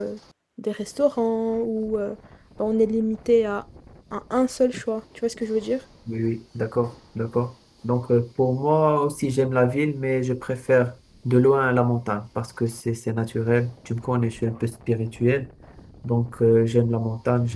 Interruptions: none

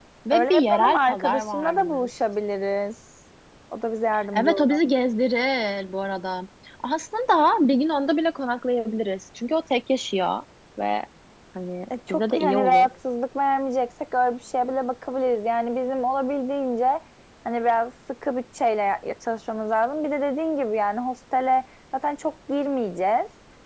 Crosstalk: present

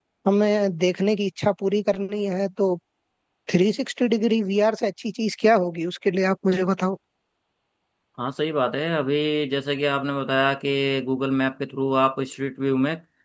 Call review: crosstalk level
none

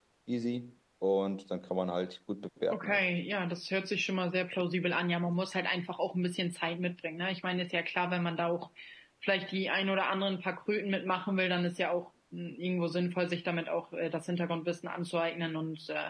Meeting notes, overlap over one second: none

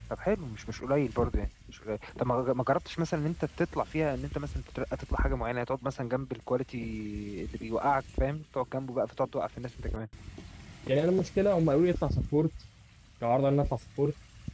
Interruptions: none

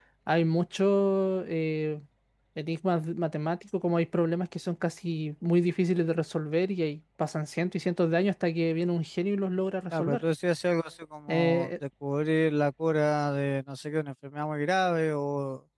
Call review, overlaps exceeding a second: none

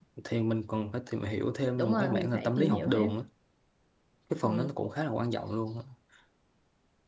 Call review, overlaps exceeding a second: present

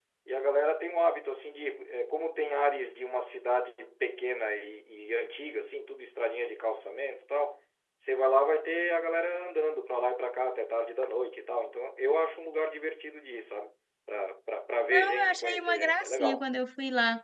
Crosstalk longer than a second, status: present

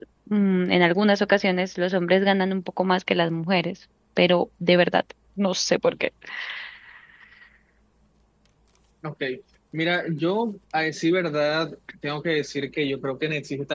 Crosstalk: none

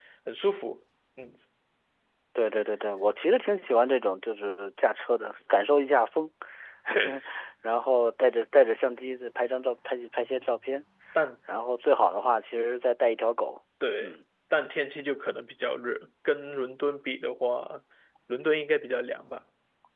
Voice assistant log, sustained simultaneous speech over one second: none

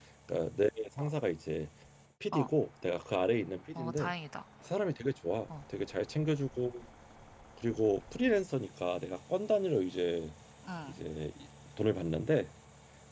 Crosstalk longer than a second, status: none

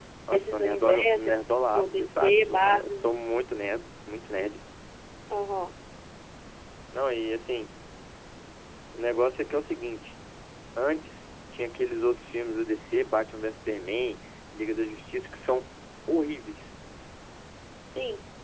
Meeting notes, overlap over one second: present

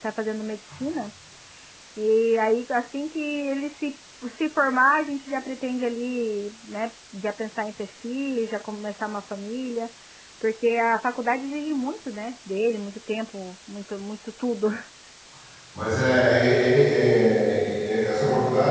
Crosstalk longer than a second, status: none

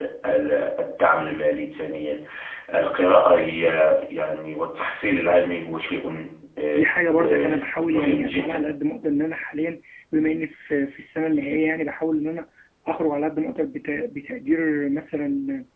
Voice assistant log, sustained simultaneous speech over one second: present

